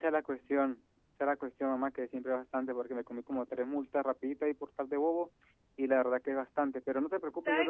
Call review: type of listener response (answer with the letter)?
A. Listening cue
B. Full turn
B